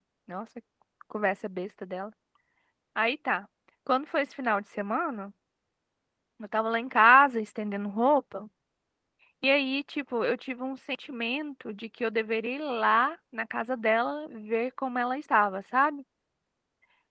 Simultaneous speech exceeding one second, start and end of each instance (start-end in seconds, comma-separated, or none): none